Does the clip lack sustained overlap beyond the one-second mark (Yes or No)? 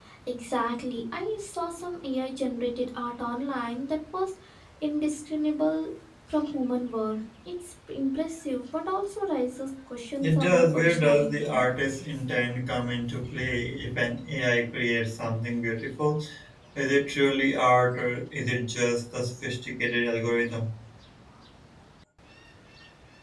No